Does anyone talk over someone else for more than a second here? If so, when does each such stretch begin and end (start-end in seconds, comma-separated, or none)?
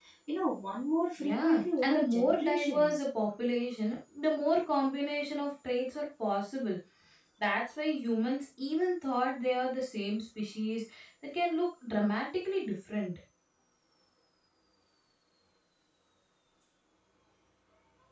1.2-3.0